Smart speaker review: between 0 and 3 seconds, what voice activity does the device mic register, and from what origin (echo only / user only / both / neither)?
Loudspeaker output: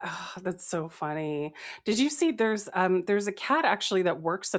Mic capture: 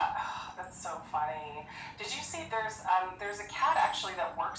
echo only